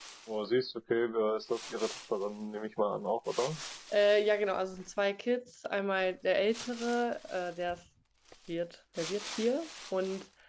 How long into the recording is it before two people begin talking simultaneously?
none

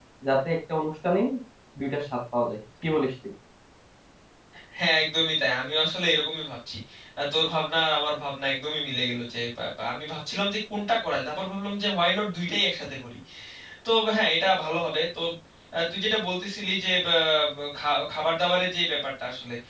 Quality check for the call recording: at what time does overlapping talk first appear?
none

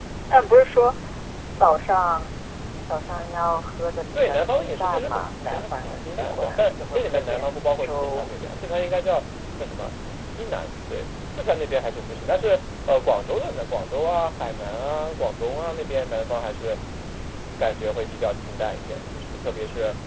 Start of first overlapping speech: 4.2 s

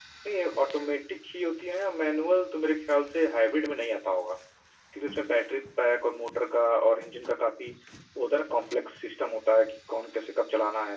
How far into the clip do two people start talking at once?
none

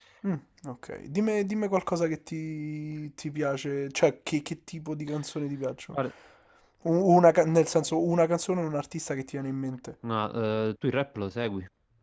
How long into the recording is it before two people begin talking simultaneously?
none

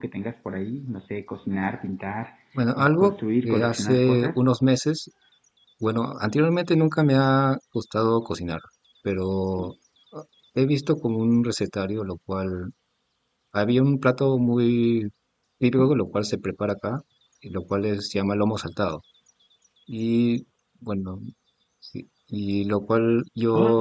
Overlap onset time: 2.8 s

